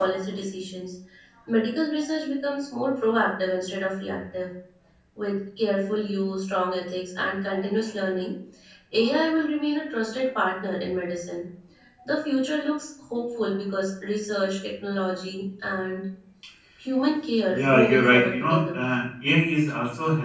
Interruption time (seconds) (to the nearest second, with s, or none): 17 s